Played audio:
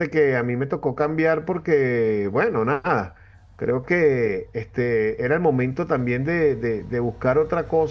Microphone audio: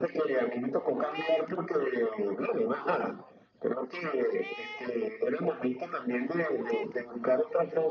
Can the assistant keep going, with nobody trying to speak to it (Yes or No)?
Yes